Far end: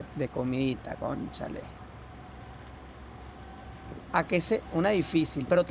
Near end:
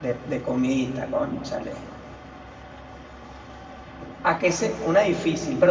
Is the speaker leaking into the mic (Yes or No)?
Yes